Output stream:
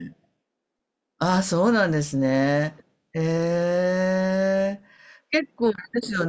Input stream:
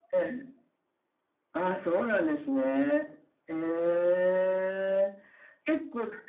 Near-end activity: none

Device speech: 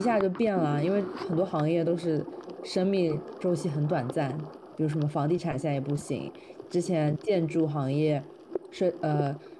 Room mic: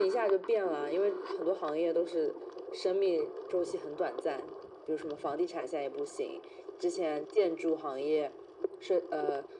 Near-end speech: none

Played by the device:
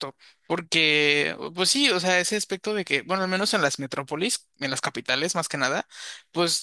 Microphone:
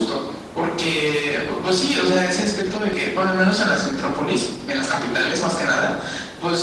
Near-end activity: none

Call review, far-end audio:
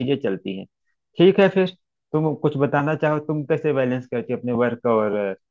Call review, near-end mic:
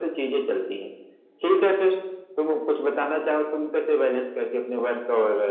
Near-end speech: none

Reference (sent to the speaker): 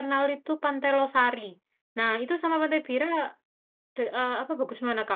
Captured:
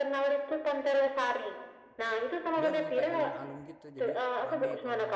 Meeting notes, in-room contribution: present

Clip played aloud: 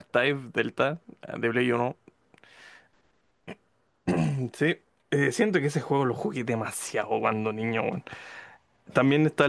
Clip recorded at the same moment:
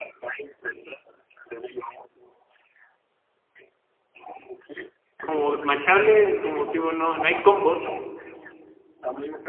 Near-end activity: present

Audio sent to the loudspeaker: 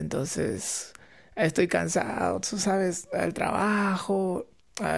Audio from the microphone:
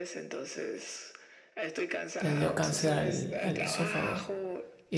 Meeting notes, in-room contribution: present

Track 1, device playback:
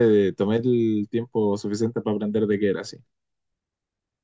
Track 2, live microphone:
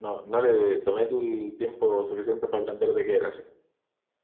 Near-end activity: none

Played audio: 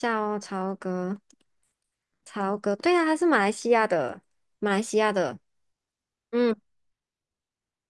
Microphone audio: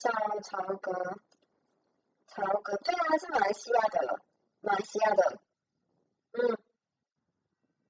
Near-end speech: none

